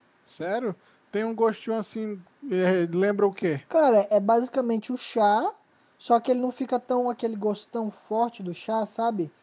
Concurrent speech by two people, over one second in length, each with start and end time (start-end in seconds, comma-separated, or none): none